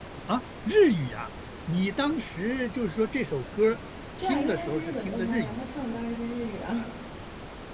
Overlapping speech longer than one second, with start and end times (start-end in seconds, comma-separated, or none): 4.2-5.6